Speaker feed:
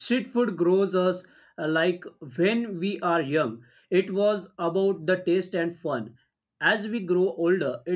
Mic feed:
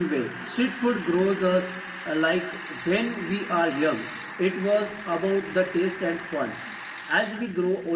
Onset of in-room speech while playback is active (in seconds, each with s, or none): none